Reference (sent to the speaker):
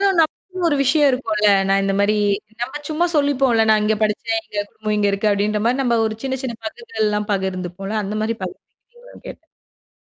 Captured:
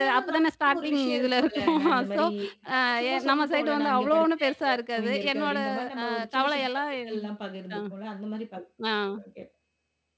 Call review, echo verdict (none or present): present